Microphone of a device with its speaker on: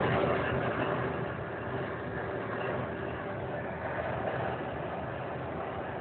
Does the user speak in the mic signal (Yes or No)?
No